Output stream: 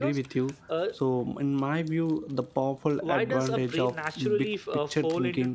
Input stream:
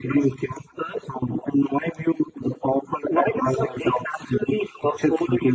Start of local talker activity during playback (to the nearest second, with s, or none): none